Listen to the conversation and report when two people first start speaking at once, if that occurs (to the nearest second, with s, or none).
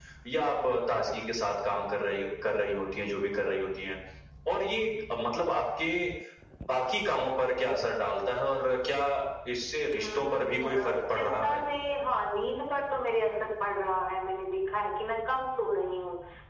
10 s